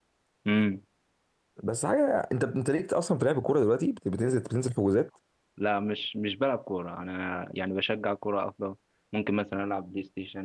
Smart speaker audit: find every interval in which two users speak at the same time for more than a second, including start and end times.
none

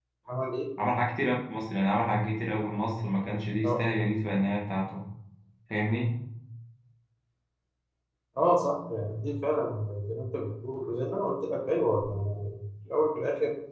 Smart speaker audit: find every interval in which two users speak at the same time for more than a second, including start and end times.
none

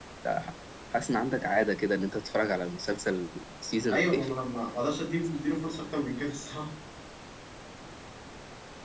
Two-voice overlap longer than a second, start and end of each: none

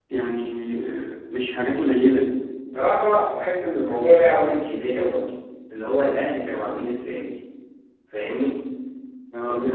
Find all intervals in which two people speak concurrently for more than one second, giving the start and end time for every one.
none

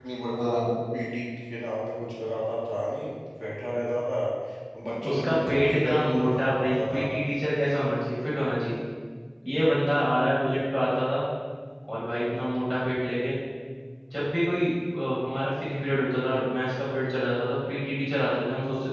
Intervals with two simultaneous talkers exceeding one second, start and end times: 5.1-7.0

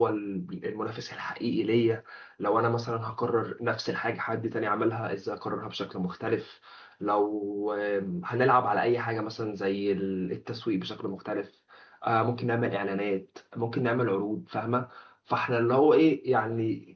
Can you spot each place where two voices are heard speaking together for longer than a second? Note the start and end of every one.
none

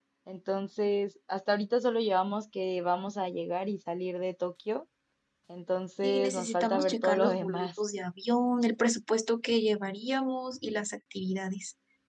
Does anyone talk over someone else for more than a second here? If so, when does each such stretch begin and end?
6.0-7.7

